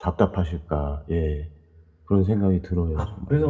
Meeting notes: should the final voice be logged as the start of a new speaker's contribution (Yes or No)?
Yes